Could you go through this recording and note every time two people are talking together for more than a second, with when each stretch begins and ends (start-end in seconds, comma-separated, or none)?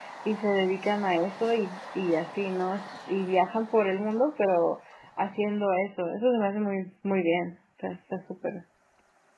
none